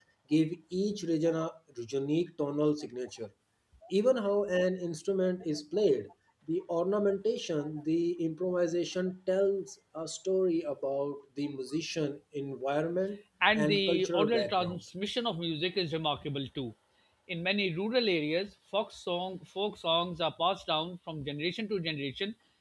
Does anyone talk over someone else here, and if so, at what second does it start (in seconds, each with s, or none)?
13.4 s